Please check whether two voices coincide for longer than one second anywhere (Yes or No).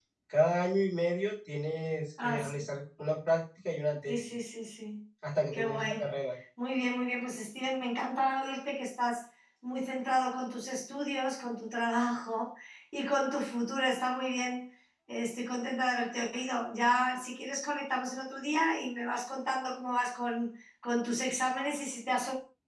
No